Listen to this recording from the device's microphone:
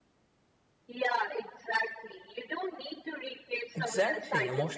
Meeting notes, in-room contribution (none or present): present